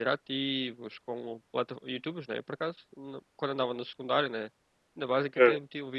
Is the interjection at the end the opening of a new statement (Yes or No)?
No